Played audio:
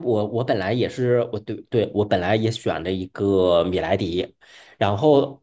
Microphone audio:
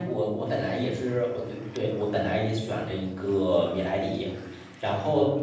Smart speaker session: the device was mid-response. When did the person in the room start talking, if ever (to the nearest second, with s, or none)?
none